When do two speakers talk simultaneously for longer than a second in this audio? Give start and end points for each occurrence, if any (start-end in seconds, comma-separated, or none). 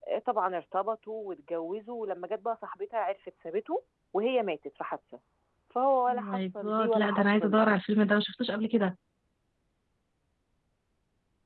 6.1-7.6